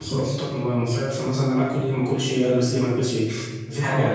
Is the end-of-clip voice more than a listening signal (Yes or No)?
Yes